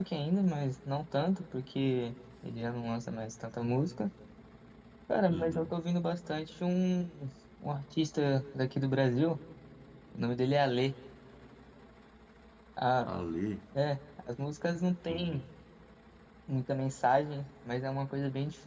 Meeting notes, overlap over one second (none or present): none